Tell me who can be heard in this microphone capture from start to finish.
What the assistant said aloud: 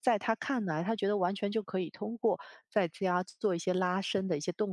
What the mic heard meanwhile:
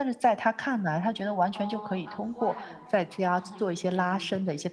both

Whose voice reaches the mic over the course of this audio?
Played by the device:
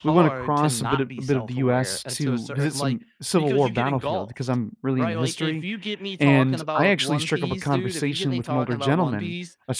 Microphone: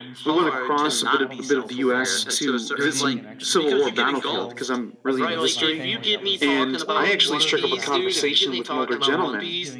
both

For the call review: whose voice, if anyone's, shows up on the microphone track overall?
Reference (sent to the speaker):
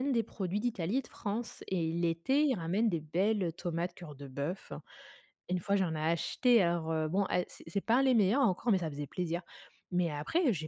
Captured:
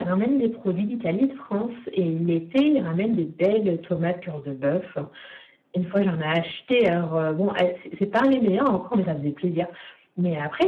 echo only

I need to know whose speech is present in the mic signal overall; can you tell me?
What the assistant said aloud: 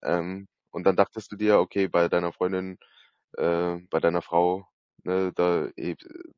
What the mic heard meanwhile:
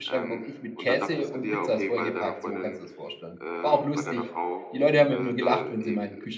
both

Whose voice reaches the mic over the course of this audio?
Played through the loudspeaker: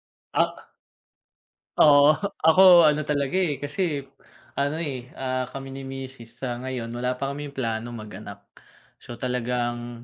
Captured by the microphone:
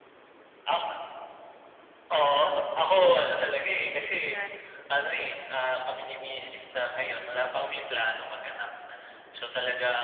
both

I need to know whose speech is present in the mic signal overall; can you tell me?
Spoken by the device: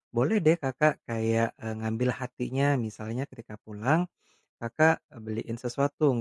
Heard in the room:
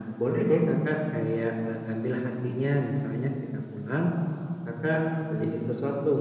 echo only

